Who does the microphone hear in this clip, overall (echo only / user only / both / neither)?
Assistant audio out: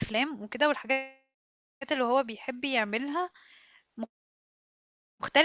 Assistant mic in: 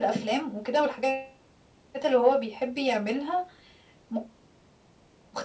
echo only